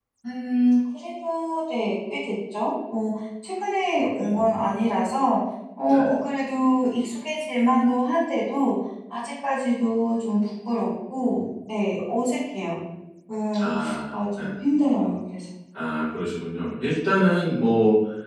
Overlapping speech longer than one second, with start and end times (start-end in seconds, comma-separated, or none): none